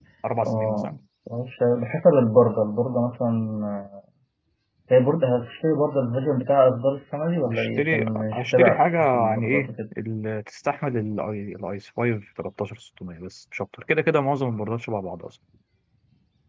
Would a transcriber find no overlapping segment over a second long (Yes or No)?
No